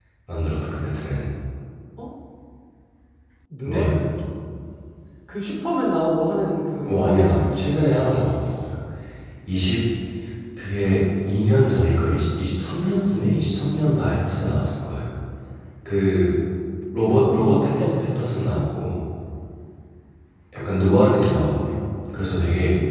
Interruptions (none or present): present